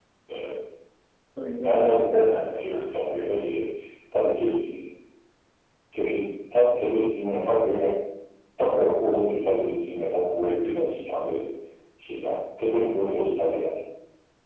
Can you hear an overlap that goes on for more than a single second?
Yes, from 1.6 s

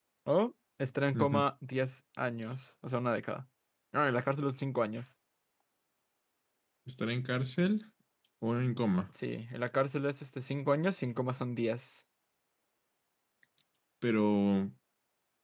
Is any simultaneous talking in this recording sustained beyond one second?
No

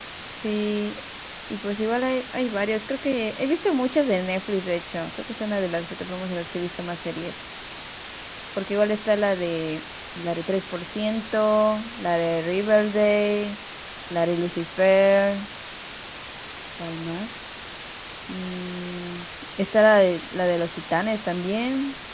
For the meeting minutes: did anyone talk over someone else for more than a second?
No

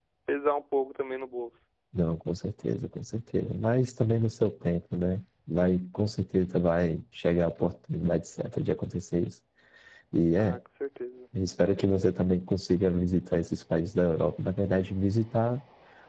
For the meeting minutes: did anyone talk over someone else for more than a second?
No

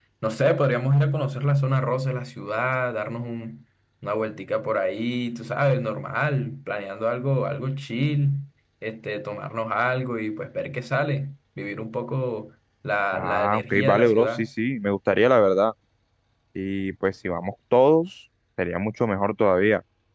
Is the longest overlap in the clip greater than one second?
Yes, from 13.1 s

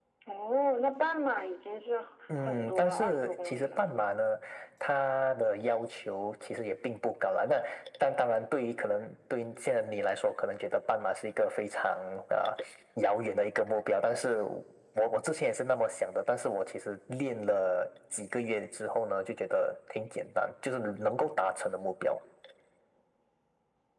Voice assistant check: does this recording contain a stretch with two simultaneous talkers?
Yes, from 2.3 s

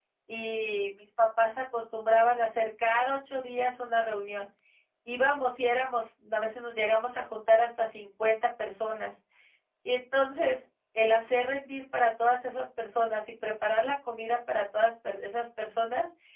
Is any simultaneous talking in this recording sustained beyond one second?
No

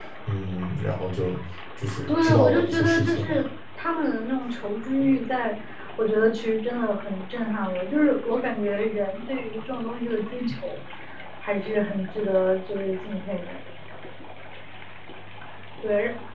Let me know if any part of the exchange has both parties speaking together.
Yes, from 2.1 s

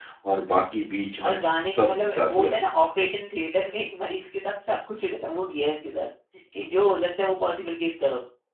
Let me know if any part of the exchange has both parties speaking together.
Yes, from 1.2 s

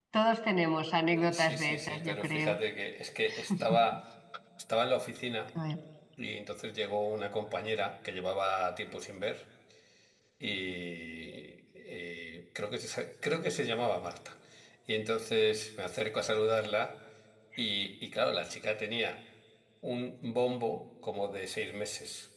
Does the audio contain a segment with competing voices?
Yes, from 1.1 s

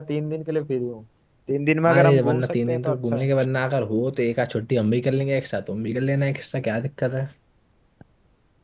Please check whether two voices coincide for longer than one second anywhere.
Yes, from 1.9 s

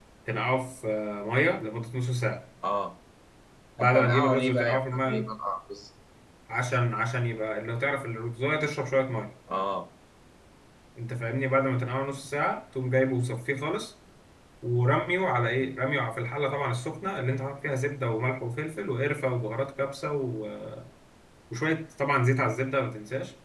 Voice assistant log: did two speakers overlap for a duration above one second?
Yes, from 3.8 s

